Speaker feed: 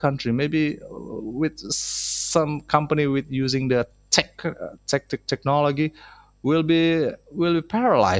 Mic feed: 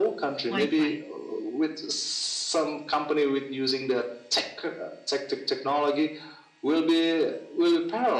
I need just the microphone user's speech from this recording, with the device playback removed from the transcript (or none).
Wi-Fi.